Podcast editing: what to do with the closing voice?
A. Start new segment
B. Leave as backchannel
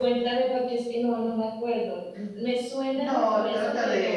A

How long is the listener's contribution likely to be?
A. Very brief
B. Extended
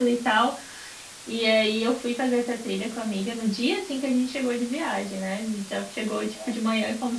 A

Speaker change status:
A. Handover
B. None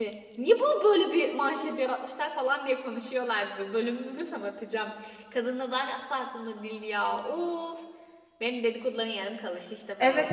A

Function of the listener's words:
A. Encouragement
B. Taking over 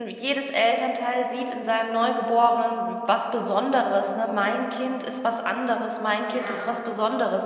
A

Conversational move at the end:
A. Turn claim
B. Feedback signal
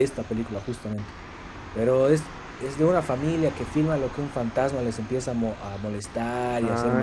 B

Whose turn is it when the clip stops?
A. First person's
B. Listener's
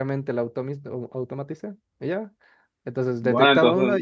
B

